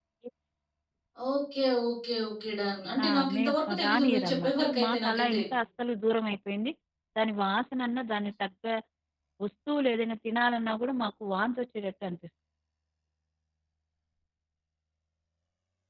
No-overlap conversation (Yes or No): No